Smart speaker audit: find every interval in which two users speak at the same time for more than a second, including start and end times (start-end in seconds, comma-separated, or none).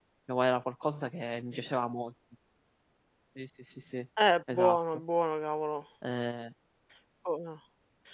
none